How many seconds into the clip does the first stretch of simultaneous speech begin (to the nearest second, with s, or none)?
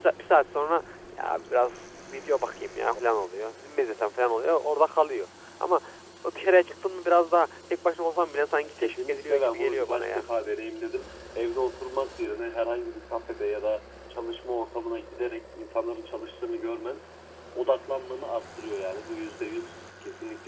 9 s